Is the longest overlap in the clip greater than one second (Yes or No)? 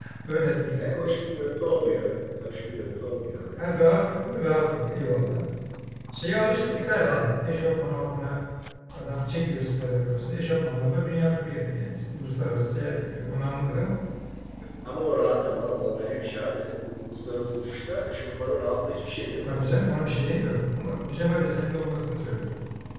No